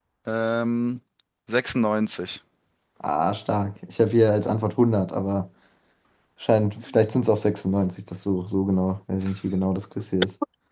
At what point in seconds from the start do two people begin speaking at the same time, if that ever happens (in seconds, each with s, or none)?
none